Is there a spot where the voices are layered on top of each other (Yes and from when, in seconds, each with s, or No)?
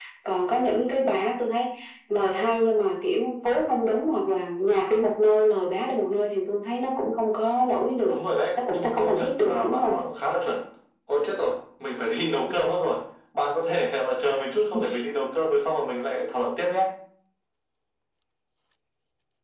Yes, from 8.7 s